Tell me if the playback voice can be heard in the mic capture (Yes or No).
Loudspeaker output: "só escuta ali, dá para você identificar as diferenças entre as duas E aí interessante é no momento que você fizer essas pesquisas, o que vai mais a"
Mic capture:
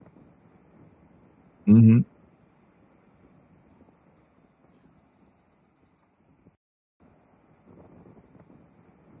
No